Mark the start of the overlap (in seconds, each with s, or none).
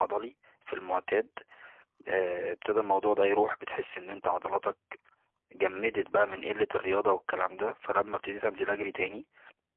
none